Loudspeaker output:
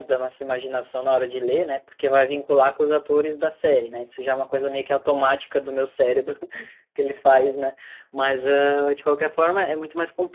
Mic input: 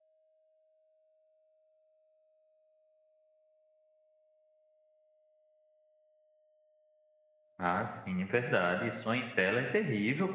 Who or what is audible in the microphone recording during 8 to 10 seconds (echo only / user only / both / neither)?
user only